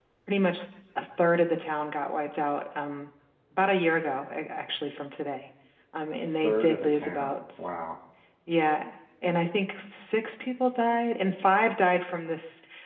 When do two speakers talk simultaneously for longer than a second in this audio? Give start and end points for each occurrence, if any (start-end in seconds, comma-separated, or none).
6.3-7.7